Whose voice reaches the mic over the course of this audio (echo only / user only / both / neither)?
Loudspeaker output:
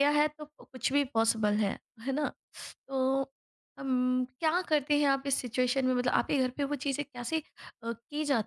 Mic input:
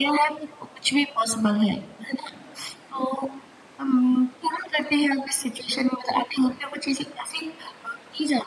echo only